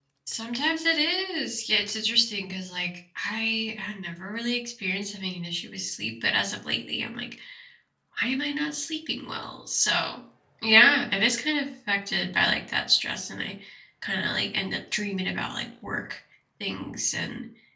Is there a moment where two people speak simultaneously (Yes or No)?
No